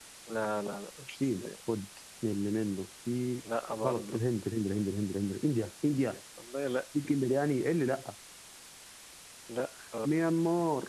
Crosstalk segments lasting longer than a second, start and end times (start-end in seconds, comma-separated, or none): none